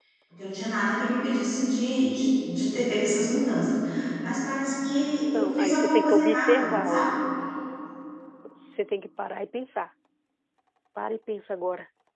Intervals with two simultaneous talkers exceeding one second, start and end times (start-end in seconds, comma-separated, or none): 5.3-7.1